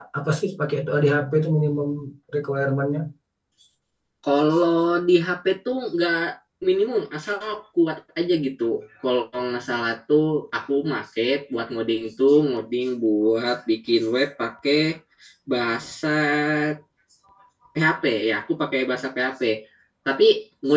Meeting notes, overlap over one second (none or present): none